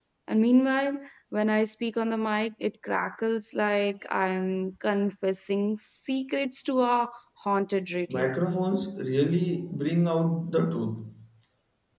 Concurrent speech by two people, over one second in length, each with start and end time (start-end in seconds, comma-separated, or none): none